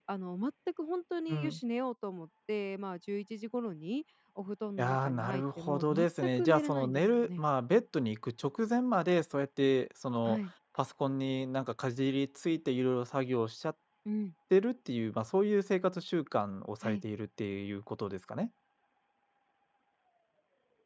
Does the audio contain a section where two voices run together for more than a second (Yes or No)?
Yes